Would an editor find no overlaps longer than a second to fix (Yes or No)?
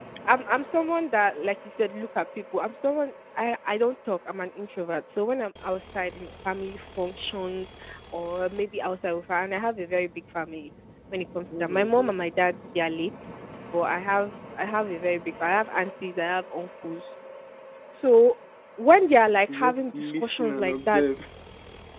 No